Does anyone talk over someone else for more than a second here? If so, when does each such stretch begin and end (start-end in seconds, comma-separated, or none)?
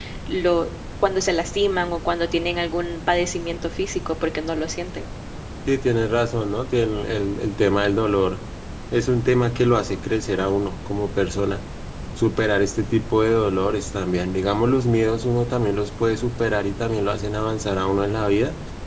none